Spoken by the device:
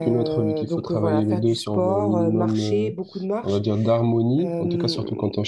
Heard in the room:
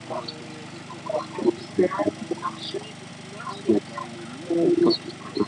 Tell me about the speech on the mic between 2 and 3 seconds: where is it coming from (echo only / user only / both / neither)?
echo only